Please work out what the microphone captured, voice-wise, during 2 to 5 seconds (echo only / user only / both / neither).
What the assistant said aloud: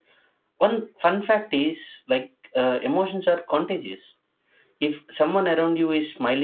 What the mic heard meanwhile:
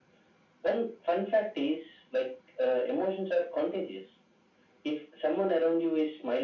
echo only